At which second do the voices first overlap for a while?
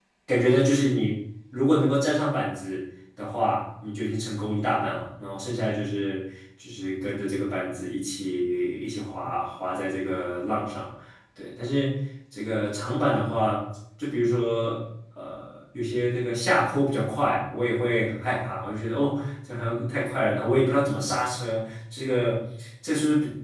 none

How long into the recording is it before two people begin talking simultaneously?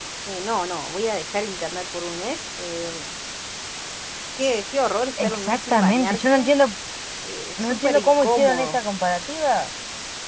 5 s

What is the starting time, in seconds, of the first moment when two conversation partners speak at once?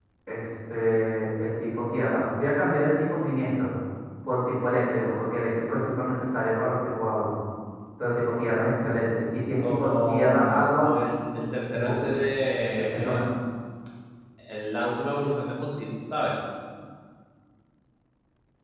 10 s

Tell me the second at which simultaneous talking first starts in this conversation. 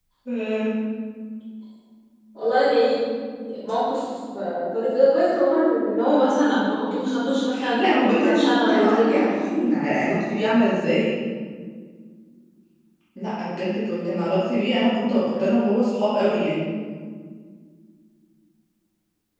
8 s

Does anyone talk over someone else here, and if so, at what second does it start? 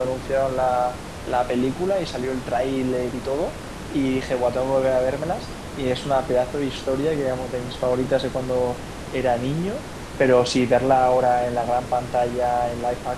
none

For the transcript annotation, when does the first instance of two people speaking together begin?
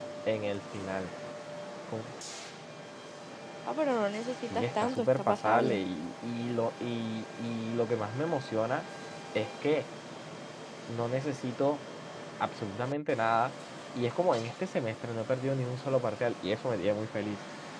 5 s

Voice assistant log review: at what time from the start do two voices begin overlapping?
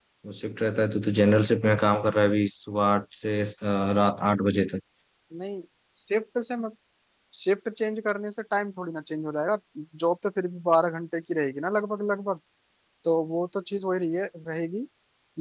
none

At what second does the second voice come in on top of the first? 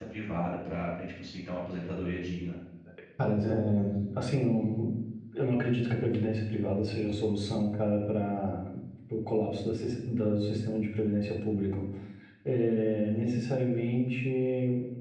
none

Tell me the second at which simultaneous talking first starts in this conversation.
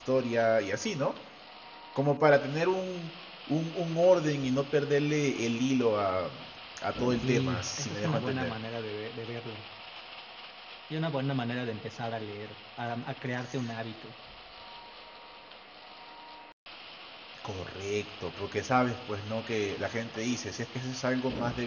7 s

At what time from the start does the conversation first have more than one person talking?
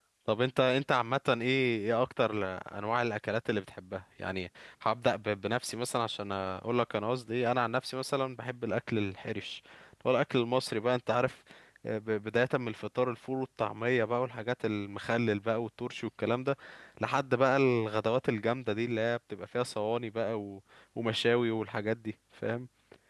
none

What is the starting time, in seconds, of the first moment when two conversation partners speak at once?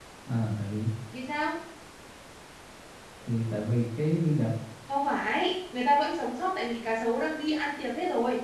none

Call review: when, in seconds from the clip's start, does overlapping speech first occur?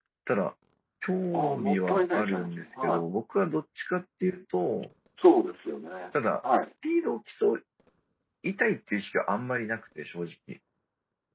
2 s

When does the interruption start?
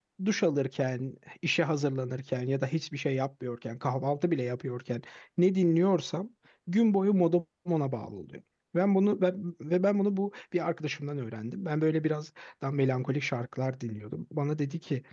none

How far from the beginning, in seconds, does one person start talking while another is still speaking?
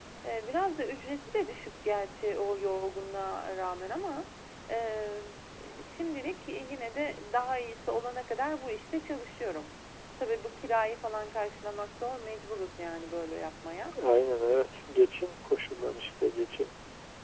none

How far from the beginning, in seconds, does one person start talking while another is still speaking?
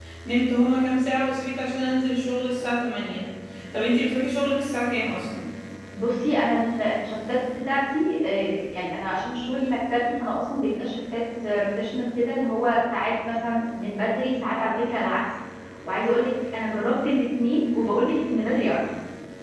none

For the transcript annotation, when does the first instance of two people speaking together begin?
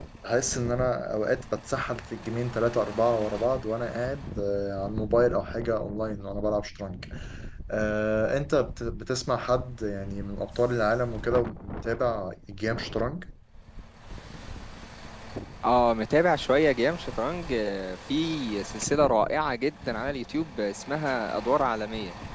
none

